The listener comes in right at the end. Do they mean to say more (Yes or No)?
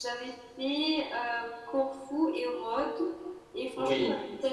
No